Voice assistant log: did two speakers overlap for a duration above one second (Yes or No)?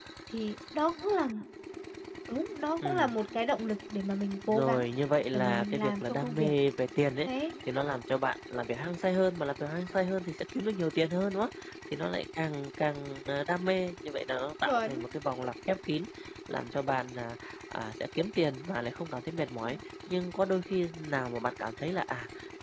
Yes